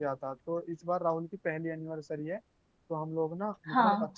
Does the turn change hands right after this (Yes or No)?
Yes